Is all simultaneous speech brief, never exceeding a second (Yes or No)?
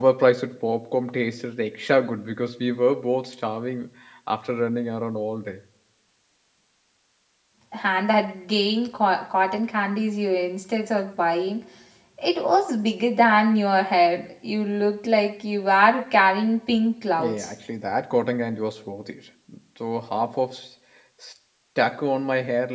Yes